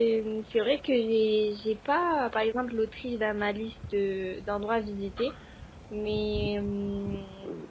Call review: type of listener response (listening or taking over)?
taking over